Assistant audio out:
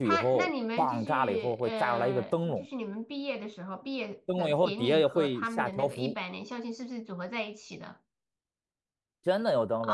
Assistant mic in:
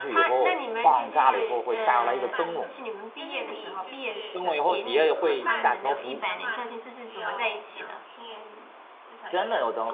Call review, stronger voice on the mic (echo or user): echo